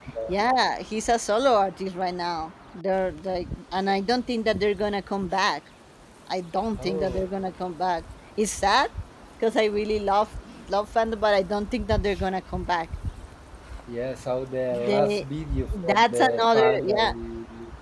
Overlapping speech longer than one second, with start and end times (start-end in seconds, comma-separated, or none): 15.8-17.1